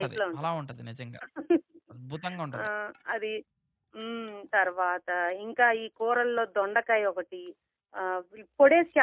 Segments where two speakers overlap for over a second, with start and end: none

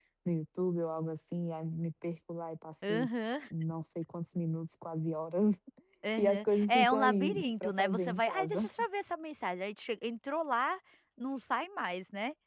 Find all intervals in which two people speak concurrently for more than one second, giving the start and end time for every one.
6.2-8.6

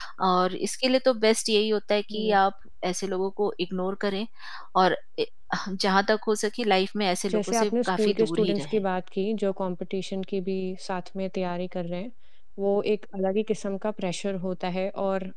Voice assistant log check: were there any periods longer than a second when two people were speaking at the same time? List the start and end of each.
7.3-8.8

